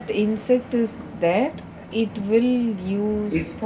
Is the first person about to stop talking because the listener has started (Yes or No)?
Yes